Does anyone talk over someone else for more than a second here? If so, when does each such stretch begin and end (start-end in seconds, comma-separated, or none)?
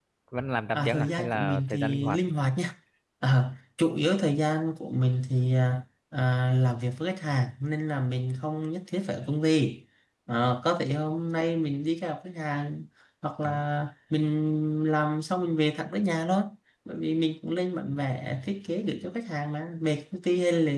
0.7-2.2